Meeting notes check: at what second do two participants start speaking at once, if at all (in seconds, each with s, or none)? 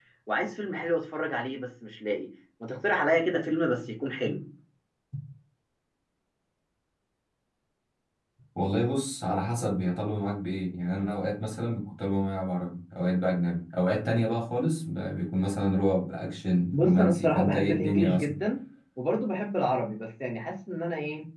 16.7 s